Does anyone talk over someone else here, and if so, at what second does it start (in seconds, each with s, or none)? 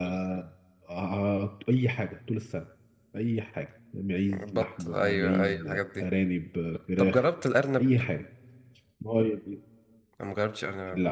4.4 s